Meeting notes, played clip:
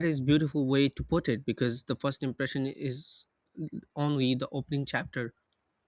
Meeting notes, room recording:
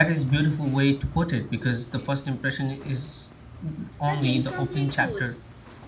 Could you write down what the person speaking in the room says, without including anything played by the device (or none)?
but incomplete tools,